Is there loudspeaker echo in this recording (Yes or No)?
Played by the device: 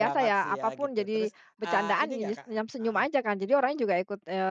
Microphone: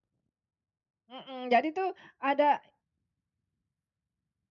No